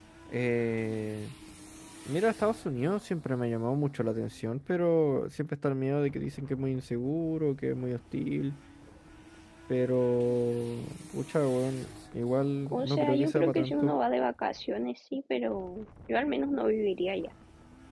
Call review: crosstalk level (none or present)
present